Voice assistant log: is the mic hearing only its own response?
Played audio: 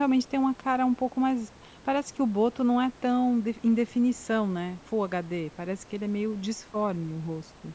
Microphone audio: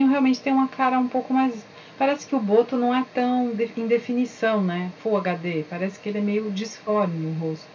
Yes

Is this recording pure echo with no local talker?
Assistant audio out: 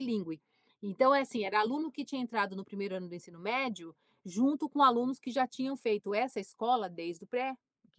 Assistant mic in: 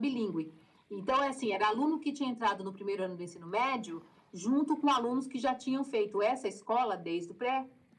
Yes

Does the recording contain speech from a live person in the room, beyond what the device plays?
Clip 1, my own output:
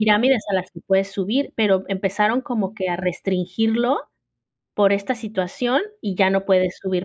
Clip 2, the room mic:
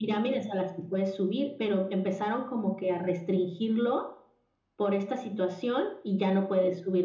No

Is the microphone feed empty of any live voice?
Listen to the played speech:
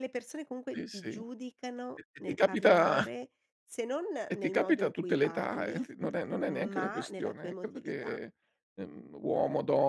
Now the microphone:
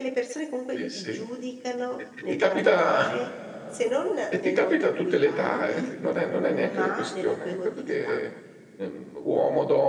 Yes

